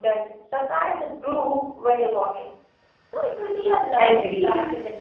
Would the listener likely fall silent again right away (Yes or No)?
No